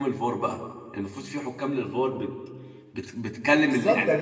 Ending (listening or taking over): taking over